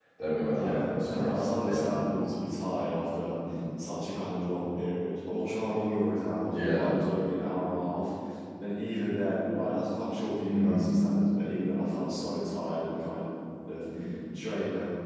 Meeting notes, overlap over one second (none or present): present